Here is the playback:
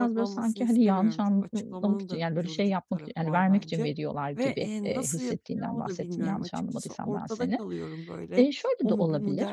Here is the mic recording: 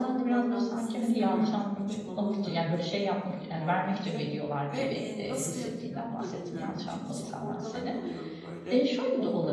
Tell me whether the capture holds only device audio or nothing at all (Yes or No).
Yes